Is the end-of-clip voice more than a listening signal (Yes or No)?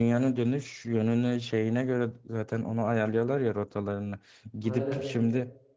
No